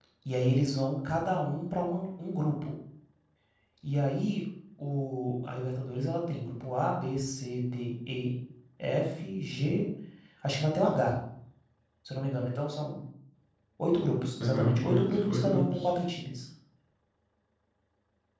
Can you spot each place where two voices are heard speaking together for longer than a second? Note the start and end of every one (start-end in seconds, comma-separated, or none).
14.4-15.9